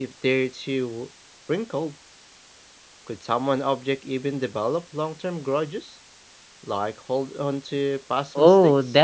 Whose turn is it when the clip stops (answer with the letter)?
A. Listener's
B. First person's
A